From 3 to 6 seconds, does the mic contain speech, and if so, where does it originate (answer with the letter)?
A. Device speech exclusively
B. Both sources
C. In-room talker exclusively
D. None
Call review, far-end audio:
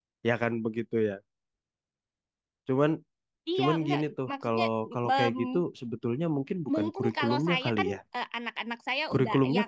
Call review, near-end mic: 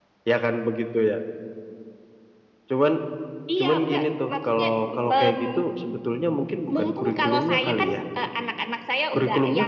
A